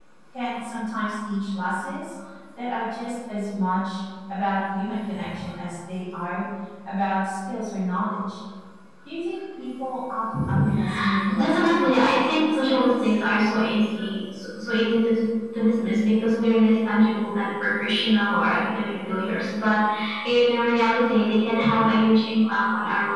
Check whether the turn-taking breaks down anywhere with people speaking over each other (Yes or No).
Yes